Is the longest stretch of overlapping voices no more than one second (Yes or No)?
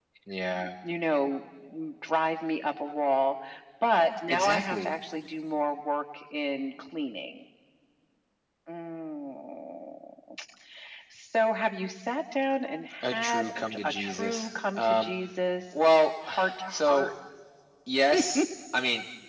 No